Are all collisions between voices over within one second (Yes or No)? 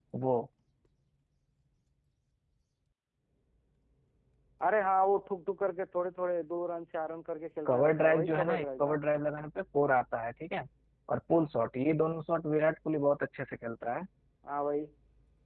No